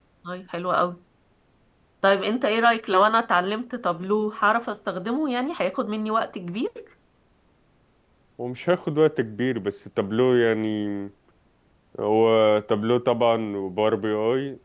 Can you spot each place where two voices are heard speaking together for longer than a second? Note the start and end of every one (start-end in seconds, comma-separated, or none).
none